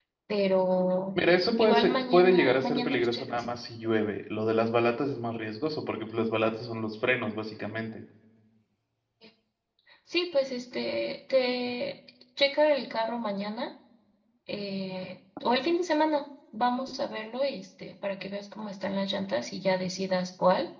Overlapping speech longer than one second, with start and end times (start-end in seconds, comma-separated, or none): 1.6-3.5